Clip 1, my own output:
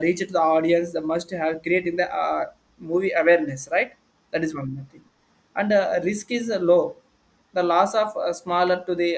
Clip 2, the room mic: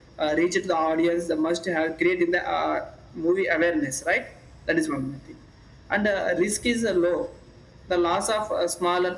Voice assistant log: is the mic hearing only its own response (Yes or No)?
Yes